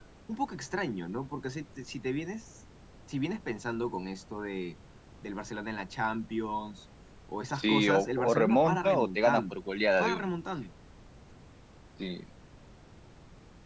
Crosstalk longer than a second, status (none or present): present